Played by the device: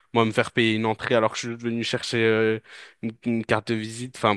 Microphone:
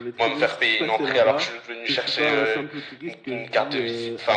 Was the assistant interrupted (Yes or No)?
Yes